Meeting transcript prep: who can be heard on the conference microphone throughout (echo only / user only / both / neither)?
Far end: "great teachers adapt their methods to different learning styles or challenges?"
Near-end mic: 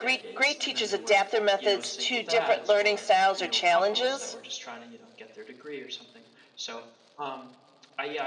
both